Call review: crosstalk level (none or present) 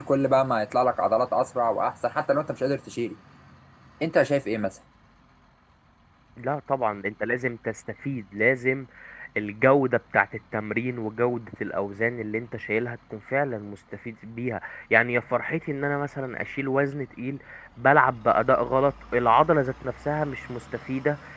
none